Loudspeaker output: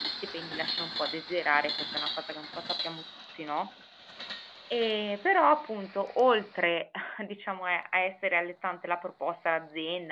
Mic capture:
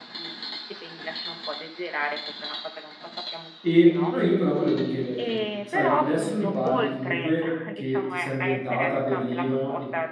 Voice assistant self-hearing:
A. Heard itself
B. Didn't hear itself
A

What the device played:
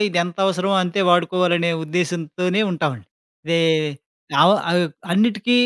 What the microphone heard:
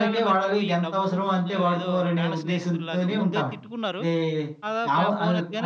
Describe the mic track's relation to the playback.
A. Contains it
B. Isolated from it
A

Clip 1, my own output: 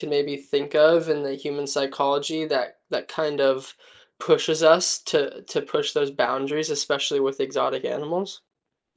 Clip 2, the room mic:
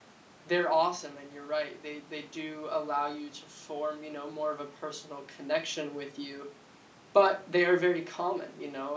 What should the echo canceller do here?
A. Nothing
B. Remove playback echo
A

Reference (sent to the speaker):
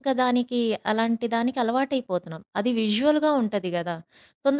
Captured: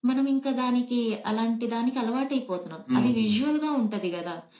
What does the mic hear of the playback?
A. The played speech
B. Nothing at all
A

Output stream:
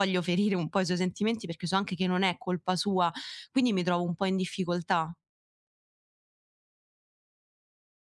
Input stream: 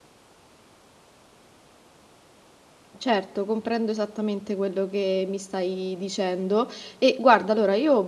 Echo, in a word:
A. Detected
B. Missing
B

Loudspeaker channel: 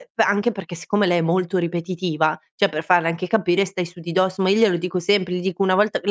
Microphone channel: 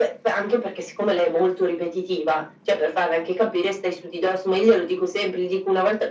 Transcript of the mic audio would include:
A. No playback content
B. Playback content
B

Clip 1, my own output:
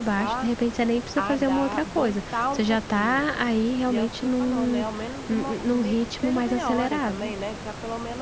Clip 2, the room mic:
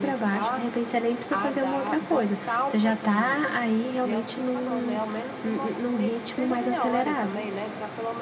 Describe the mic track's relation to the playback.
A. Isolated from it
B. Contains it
B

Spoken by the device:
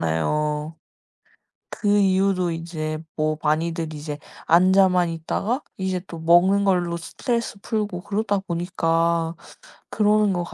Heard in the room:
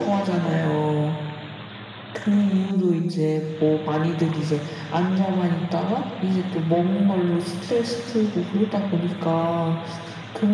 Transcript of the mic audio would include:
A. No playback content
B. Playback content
B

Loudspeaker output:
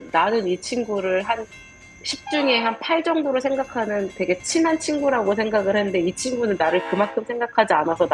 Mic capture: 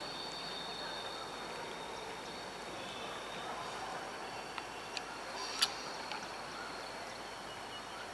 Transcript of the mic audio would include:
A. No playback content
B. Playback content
A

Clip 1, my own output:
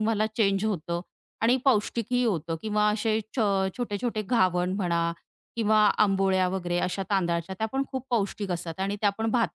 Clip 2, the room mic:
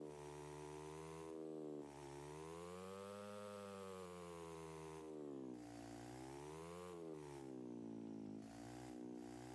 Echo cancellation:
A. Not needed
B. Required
A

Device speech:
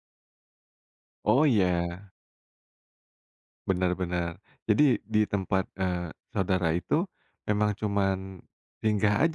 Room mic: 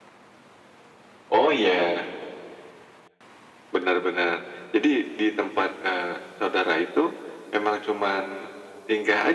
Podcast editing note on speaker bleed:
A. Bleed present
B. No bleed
A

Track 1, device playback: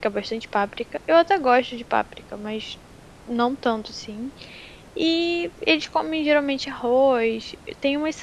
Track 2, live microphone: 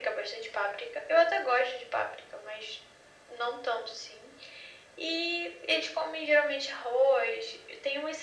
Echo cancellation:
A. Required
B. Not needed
A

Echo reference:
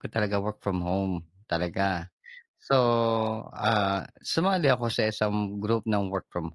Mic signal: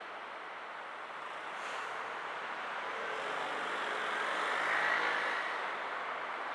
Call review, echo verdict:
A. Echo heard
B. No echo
B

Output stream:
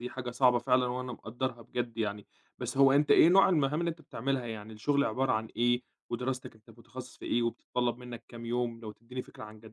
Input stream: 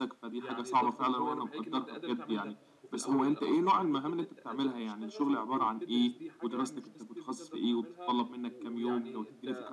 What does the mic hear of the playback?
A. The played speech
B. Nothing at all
A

